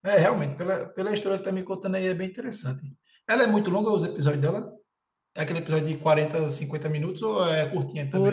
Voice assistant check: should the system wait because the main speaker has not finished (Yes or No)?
No